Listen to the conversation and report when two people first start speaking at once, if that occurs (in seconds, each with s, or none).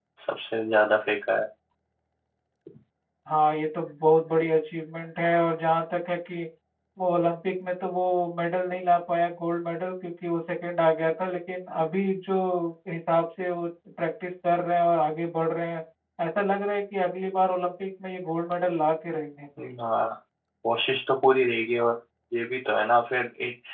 none